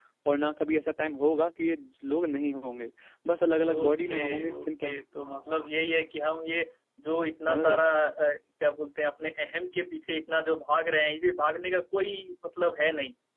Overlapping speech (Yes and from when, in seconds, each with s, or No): Yes, from 3.7 s